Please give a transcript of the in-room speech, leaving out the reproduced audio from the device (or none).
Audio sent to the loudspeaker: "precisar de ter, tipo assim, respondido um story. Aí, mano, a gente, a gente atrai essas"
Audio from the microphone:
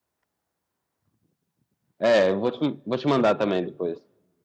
É, eu vou te, vou te mandar também depois.